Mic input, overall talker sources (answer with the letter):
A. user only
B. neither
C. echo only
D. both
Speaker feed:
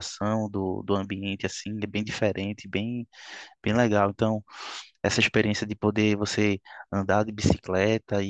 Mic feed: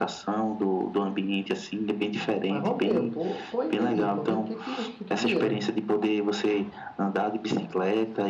D